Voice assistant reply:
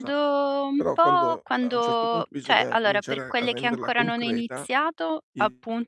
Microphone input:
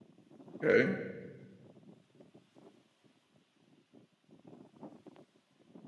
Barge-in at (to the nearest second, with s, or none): 1 s